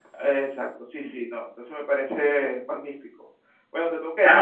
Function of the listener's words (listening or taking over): taking over